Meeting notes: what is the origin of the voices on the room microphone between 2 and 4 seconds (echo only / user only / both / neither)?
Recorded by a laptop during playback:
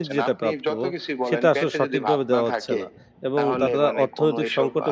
both